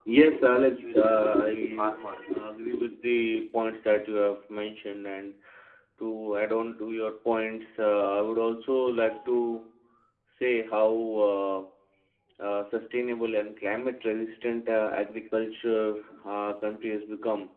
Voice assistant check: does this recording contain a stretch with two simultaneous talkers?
Yes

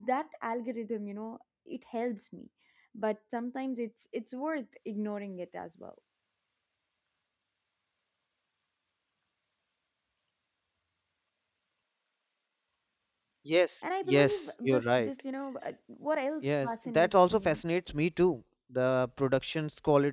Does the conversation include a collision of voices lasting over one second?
Yes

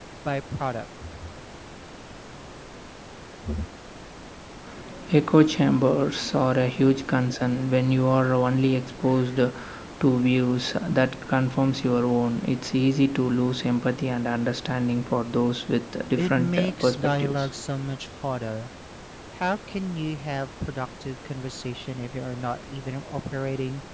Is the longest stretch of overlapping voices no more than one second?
No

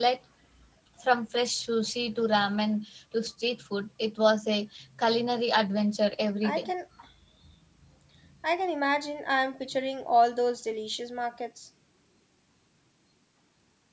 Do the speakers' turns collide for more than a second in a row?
No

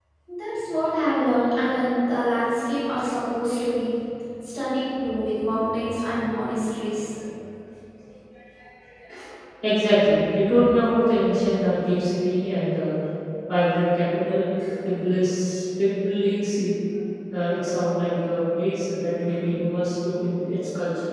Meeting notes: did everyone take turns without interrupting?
Yes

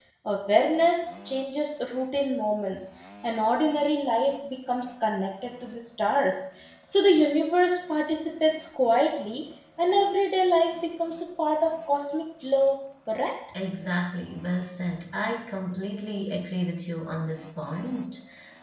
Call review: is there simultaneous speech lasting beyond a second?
No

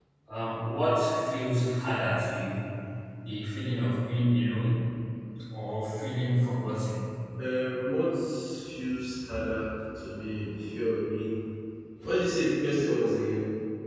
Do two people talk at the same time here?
No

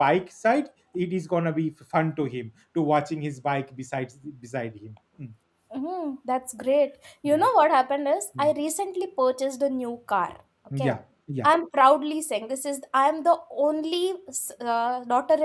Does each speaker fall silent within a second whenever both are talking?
Yes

